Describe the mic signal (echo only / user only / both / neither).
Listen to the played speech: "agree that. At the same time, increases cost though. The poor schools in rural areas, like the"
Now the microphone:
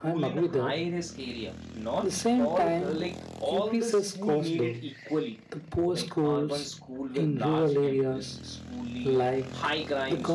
both